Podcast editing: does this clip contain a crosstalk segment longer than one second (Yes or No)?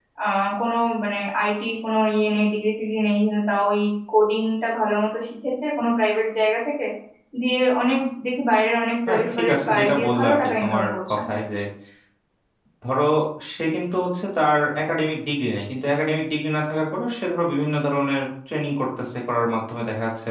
Yes